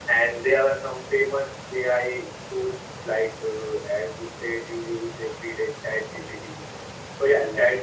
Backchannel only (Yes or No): Yes